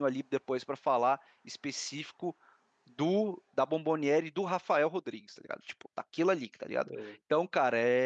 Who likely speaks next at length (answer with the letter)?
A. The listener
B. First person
B